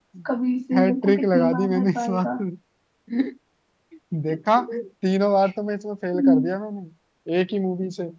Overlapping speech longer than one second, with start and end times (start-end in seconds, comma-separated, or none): 0.7-2.3